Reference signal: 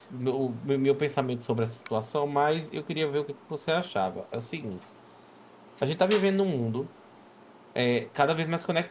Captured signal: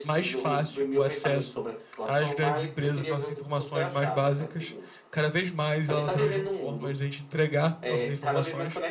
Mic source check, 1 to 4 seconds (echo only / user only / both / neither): both